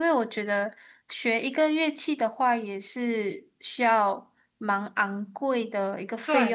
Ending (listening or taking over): taking over